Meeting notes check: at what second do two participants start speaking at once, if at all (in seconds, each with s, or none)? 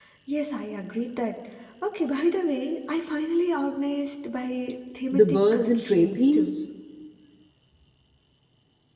5.1 s